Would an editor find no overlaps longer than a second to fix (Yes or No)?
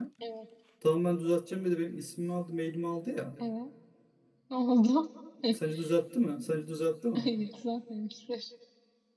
Yes